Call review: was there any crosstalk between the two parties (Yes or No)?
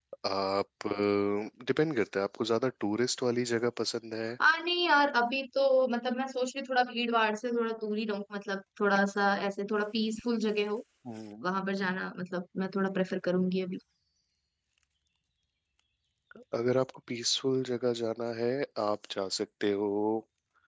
No